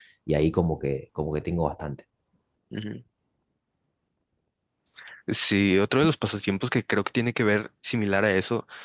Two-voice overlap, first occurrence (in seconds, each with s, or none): none